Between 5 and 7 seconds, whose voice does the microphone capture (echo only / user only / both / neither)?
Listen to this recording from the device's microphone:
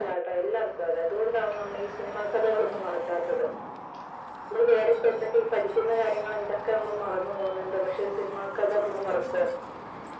echo only